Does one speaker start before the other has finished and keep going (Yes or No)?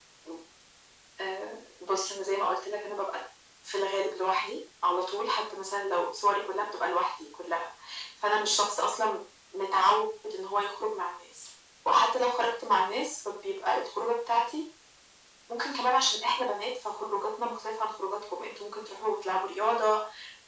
No